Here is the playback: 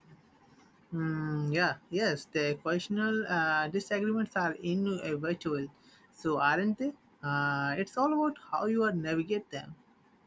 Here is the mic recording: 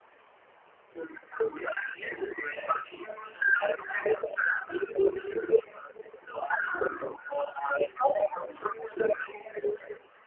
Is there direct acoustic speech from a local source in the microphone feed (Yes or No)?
No